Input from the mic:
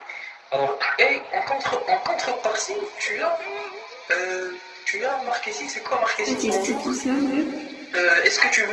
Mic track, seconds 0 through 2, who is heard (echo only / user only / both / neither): echo only